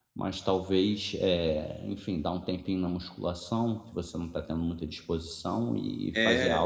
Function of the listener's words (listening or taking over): taking over